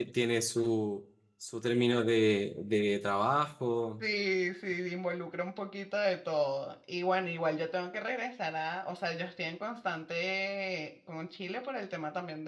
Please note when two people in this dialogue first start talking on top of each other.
none

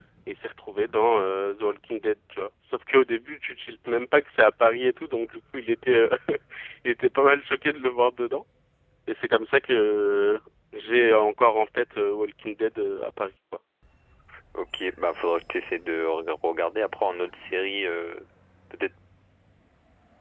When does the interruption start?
none

